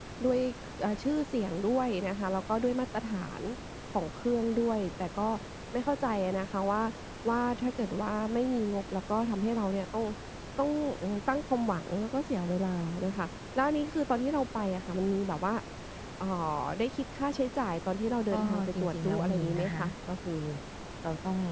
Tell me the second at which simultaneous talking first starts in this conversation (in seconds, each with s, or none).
18.3 s